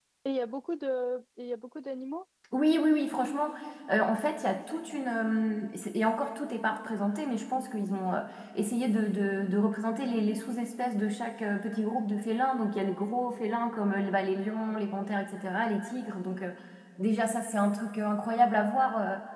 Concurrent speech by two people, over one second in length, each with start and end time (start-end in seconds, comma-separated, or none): none